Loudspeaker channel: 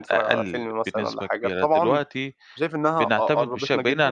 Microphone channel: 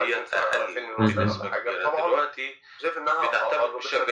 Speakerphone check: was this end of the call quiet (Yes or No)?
No